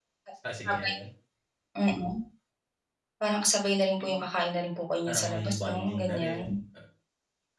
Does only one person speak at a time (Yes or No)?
No